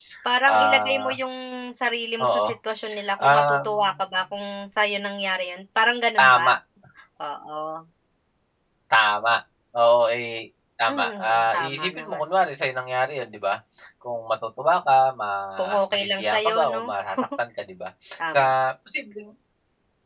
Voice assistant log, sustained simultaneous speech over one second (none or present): present